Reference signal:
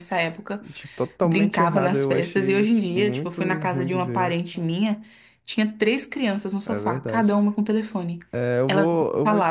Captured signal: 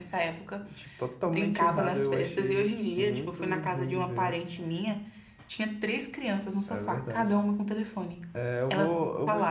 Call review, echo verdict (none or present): present